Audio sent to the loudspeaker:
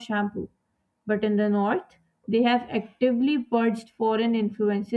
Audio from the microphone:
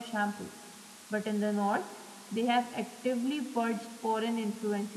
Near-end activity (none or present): none